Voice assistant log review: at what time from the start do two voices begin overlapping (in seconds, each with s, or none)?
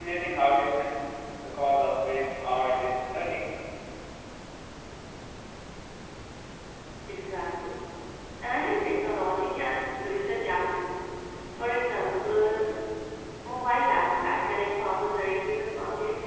none